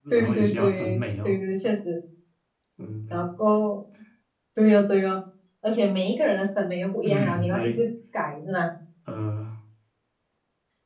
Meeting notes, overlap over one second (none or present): present